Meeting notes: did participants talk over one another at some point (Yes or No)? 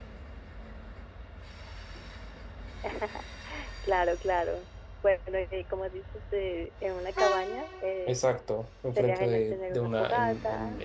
Yes